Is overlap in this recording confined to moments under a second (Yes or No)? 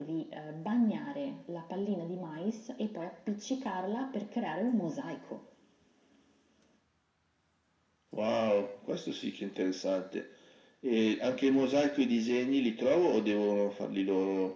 Yes